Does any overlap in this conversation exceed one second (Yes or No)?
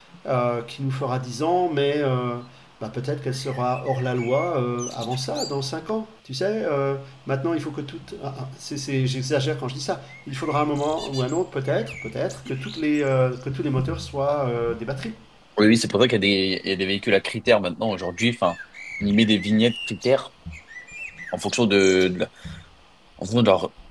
No